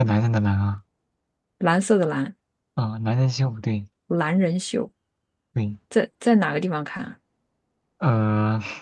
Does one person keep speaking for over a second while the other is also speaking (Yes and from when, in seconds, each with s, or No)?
No